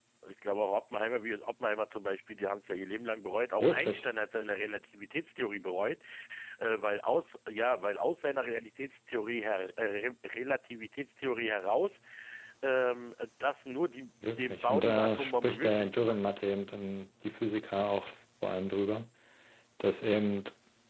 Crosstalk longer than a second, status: present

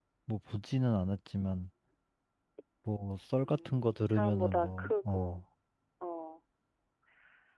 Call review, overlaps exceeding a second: present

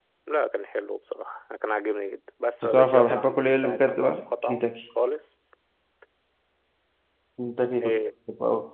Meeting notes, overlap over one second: present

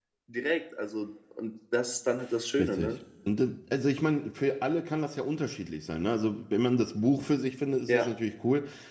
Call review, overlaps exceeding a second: none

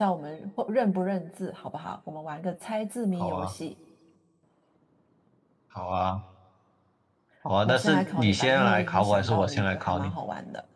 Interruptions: present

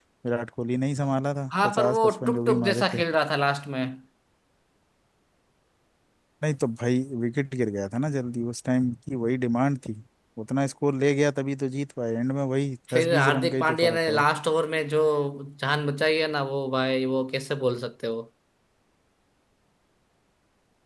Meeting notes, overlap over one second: present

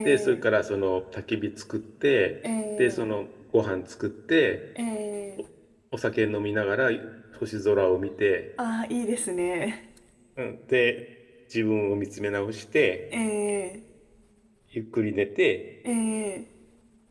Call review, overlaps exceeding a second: none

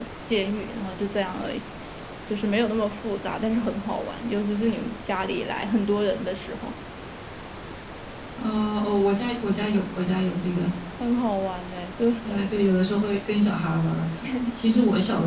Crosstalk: none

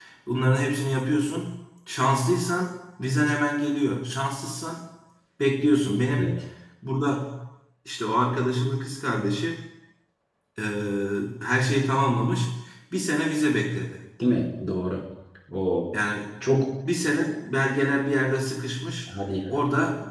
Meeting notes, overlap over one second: none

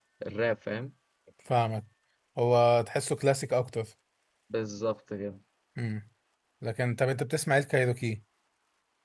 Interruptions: none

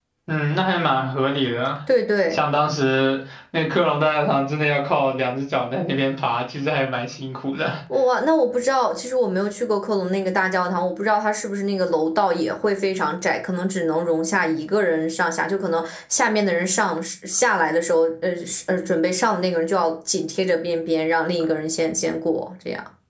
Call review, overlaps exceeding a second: none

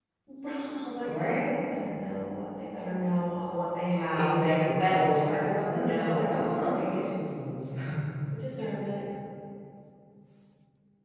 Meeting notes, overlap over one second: present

